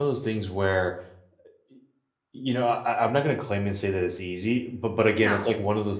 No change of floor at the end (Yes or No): Yes